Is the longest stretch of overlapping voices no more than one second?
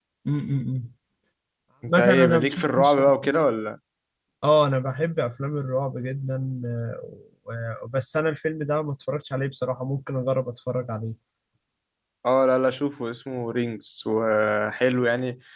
No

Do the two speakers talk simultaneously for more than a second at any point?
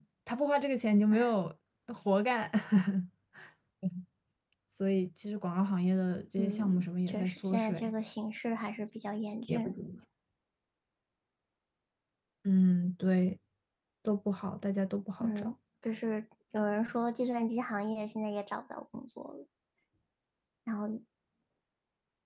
Yes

